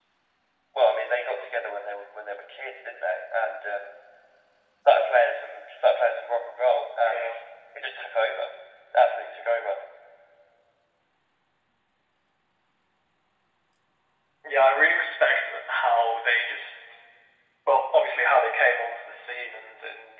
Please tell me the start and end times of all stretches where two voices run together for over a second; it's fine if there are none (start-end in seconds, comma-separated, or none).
none